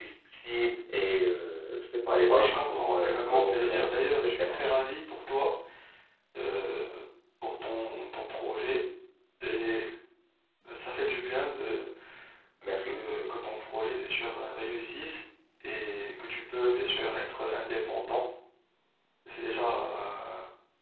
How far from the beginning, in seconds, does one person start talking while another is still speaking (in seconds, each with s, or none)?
2.3 s